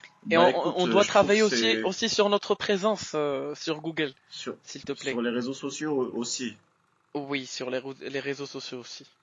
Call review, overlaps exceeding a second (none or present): present